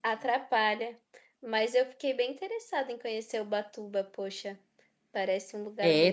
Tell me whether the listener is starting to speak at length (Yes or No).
Yes